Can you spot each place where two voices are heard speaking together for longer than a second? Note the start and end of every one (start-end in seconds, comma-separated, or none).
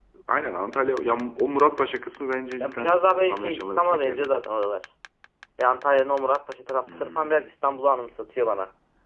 2.6-4.3